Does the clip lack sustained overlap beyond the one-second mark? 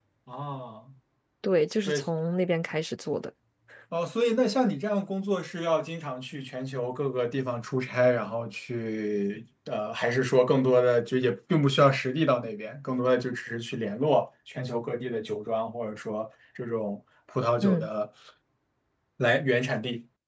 Yes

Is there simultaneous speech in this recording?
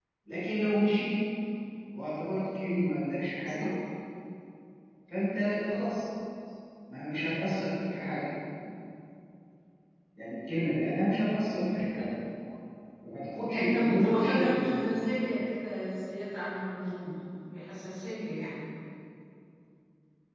Yes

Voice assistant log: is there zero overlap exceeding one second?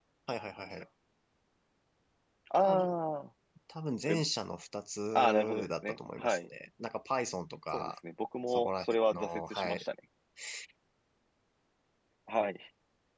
No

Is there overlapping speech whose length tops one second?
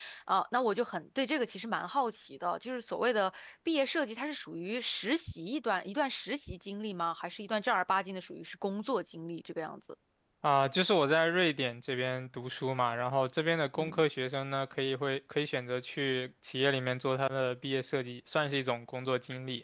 No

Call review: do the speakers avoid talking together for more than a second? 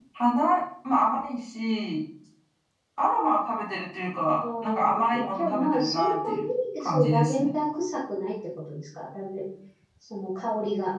No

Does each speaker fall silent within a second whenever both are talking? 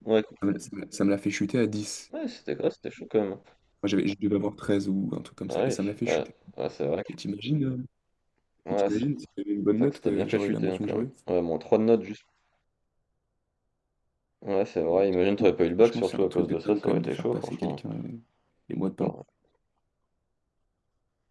No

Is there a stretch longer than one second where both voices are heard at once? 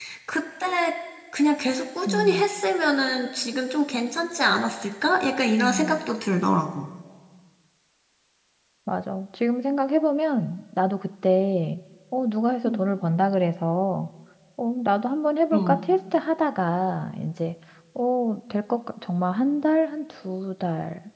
No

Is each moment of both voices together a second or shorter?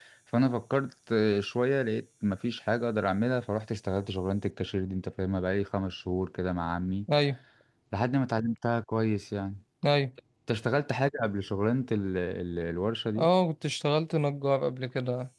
Yes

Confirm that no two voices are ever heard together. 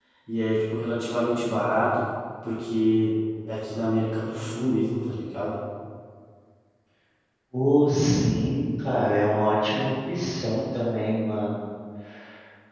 Yes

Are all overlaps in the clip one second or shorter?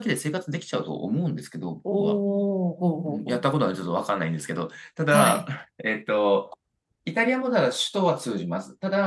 Yes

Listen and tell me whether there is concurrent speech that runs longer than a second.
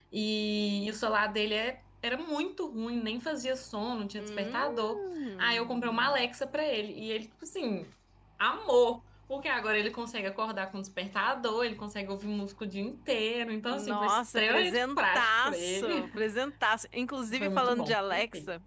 Yes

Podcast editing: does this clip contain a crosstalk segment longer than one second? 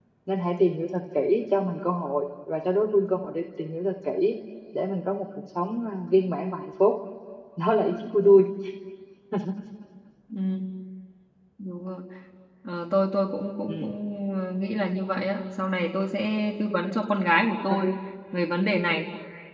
No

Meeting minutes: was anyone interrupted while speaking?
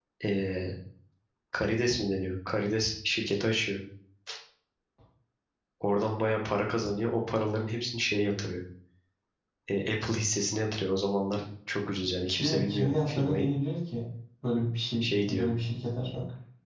Yes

